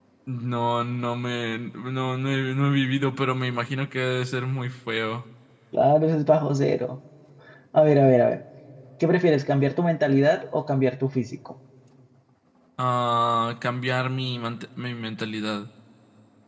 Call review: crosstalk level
none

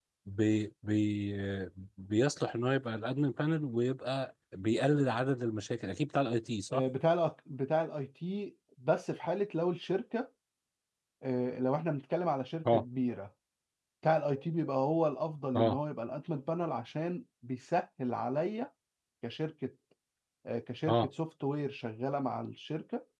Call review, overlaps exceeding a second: none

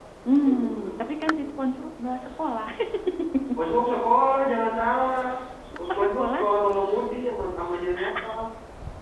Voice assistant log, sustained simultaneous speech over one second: present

